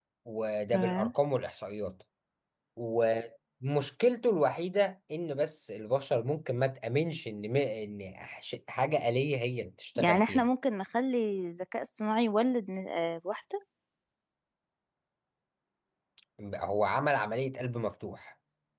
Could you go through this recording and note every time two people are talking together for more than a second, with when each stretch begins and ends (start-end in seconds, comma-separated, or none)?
none